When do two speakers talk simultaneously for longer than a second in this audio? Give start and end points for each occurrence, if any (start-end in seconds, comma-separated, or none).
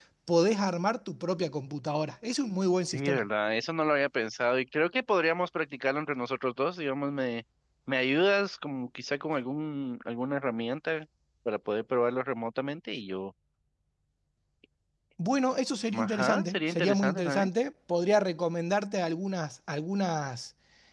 15.9-17.5